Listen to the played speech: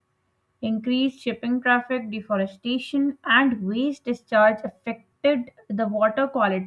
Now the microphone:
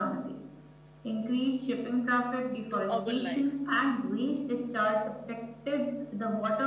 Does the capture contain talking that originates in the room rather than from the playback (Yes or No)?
Yes